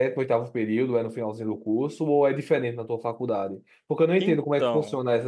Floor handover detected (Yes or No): No